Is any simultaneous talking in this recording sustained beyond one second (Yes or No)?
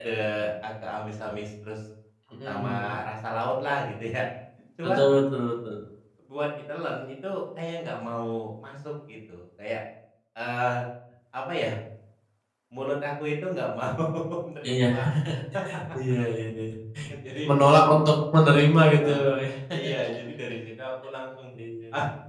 No